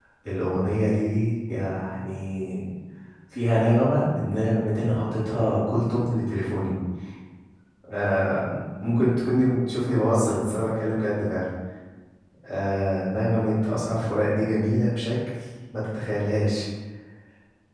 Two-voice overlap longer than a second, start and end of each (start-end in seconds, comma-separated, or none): none